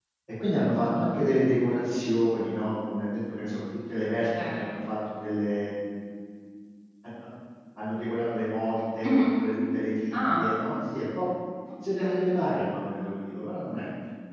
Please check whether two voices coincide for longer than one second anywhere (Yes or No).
No